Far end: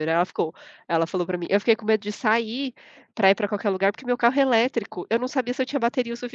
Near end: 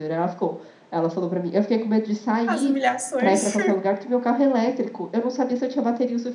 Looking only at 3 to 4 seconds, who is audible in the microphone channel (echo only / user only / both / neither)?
both